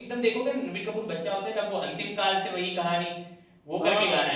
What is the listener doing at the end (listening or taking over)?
taking over